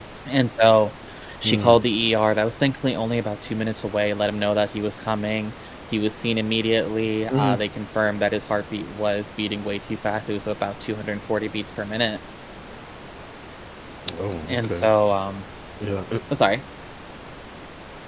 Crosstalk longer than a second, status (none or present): none